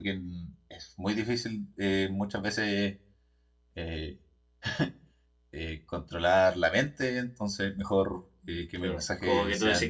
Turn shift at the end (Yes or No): Yes